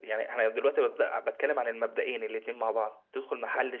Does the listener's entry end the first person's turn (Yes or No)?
No